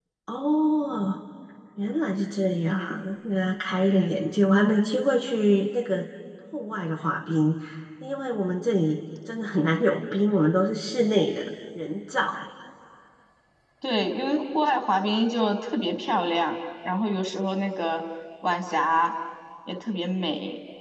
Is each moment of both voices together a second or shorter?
Yes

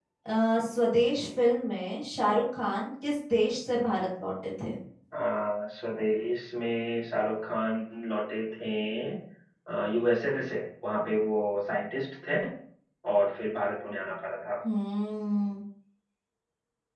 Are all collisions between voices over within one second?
Yes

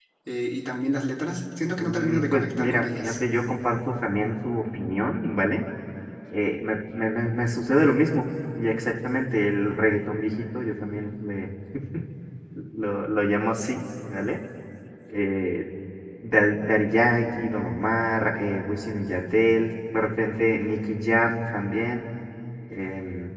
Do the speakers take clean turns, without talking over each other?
No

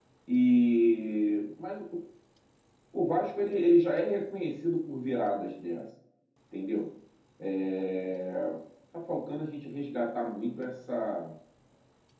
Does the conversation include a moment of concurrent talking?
No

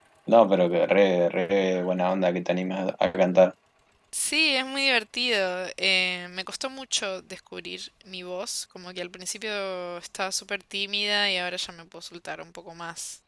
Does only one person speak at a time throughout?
Yes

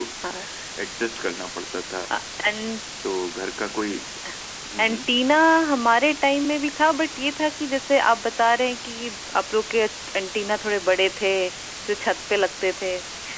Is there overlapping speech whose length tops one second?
No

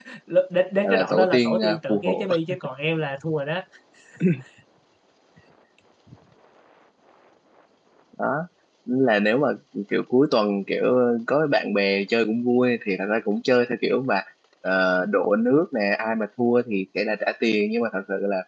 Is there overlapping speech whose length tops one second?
Yes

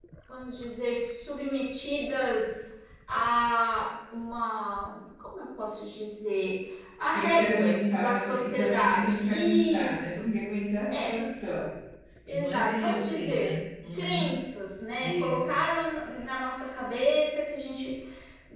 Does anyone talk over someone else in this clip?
Yes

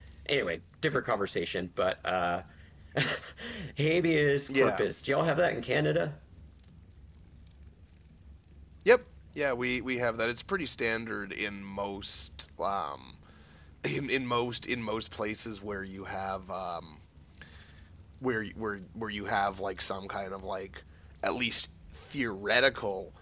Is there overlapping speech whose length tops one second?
No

